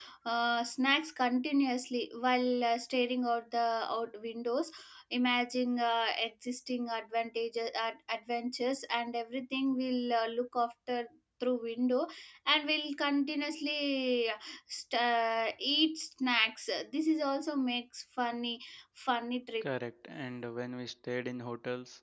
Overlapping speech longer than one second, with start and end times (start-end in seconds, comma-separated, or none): none